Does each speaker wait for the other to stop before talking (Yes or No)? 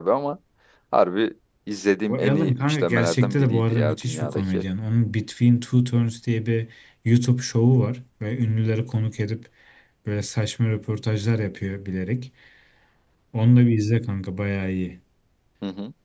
No